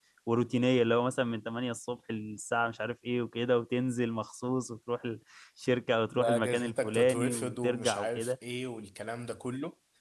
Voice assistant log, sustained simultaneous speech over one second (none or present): present